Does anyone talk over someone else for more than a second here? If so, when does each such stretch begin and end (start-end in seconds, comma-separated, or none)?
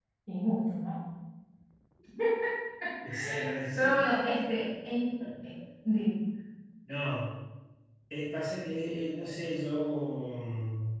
none